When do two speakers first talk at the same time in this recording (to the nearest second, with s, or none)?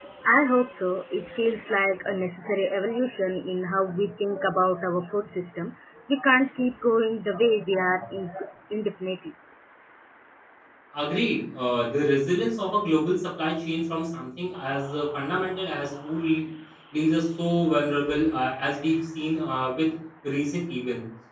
none